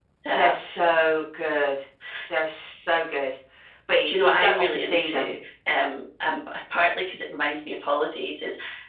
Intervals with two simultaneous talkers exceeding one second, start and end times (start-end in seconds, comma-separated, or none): 4.0-5.3